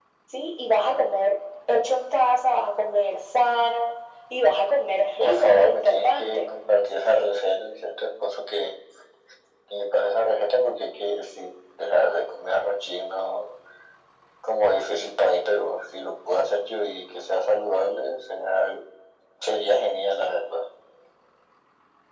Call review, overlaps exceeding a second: present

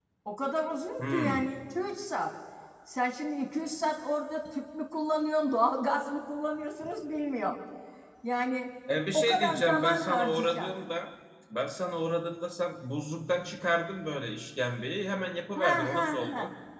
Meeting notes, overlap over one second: present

